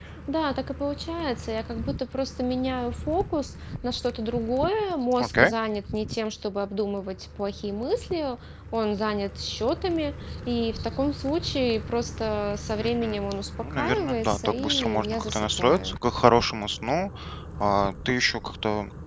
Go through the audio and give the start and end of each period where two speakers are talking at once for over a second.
13.7-16.0

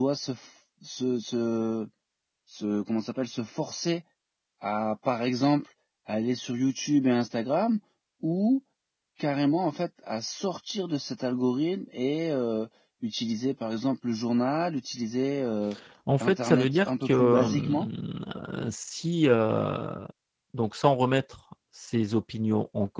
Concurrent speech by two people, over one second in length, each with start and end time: 16.2-17.9

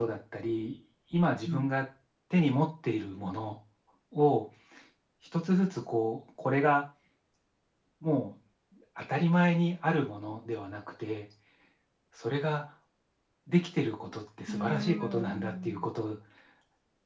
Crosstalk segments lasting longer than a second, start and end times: 14.5-15.9

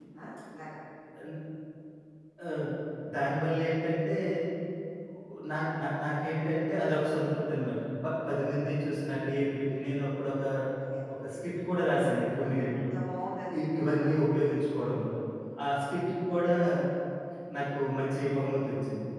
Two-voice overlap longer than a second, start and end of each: none

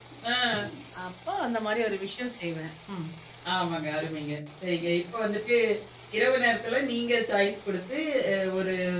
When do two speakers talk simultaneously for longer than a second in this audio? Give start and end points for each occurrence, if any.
none

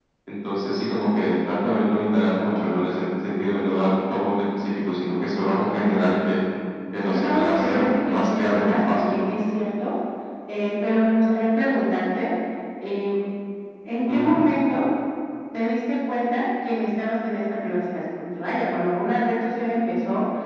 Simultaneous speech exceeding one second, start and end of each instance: 7.1-9.1

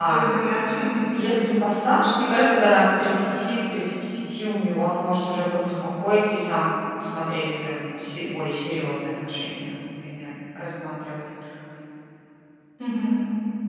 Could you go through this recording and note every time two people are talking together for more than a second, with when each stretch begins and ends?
none

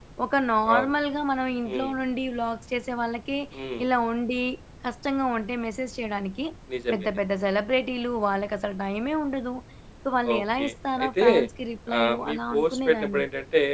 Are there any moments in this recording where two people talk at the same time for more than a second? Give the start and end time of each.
12.0-13.2

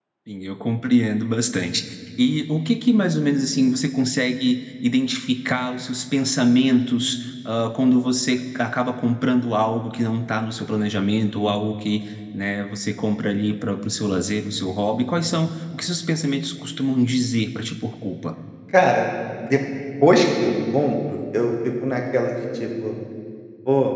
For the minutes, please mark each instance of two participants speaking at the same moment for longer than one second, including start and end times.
none

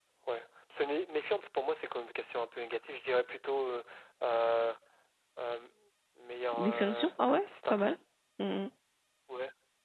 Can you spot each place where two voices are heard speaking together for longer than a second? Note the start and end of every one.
6.6-8.0

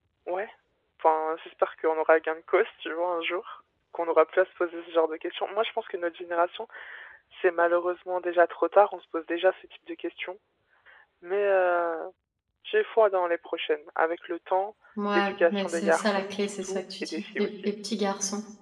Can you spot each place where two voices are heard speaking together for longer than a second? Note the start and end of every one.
15.1-17.7

